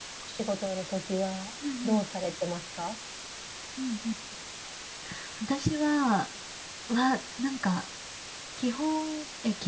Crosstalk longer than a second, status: none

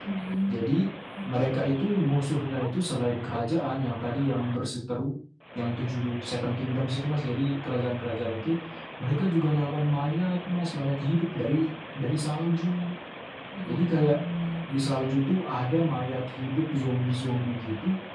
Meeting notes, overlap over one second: none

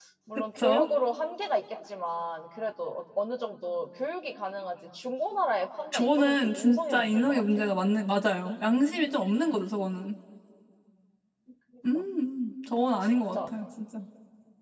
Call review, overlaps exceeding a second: present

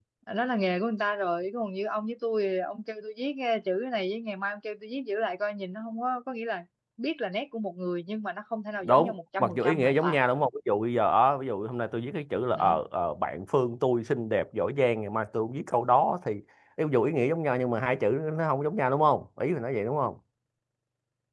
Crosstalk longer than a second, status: present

